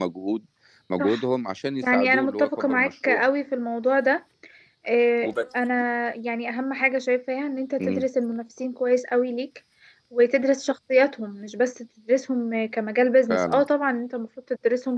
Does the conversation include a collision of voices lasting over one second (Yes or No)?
Yes